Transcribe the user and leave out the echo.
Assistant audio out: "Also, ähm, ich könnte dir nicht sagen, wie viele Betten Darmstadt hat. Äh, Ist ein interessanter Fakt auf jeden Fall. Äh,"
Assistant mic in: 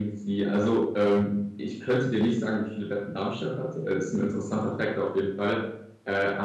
none

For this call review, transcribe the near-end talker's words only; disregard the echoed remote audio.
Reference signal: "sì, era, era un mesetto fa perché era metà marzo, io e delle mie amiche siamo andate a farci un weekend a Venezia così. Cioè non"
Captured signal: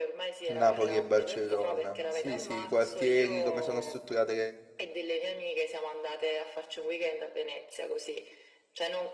Napoli e Barcellona. Sì, sì, i quartieri, come sono strutturate

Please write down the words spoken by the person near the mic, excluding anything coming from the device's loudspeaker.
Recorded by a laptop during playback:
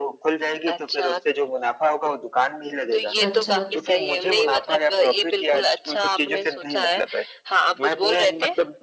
अच्छा

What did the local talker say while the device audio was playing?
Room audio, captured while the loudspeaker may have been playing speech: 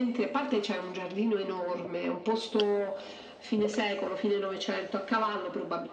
none

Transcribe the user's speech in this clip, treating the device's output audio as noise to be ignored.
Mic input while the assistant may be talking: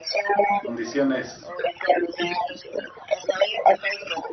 condiciones,

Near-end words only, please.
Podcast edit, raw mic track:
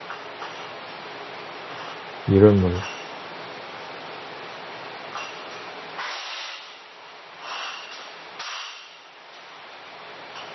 你认为

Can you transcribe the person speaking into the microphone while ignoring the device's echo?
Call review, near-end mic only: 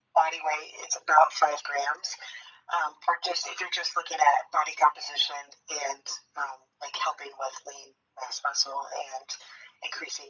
none

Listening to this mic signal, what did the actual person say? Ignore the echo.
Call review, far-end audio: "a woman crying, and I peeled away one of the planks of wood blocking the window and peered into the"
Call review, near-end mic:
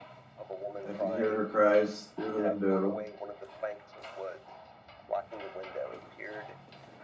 I could hear her cries through the window.

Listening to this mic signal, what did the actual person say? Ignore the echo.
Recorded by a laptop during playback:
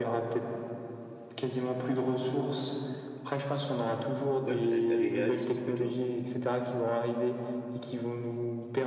ouais, elle elle est réaliste plutôt?

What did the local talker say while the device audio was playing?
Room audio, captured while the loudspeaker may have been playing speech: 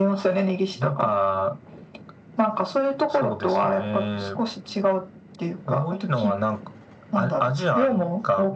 none

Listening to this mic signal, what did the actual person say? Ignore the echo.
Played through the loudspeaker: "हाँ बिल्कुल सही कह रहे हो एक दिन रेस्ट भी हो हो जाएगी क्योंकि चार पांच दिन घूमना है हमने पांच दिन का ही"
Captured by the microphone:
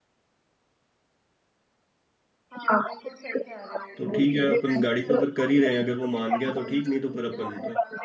तो ठीक है अपन गाड़ी तो फिर कर ही रहे हैं अगर वो मान गया तो ठीक नहीं तो फिर अपन

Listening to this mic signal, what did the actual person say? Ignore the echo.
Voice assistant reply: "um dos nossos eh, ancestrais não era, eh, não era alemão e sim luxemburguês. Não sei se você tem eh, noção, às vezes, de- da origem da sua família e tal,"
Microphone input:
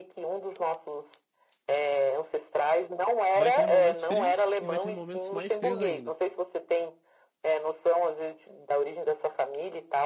vai ter momentos frios e vai ter momentos mais frios ainda.

